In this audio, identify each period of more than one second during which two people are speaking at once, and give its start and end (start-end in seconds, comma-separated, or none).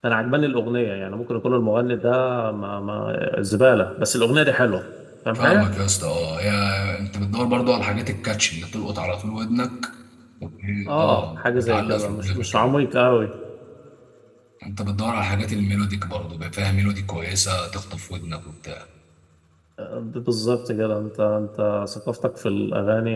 11.0-12.7